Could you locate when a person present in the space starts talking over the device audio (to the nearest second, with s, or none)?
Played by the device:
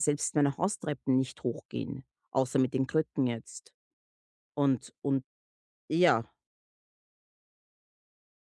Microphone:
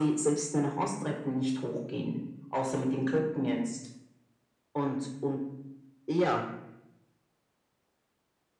none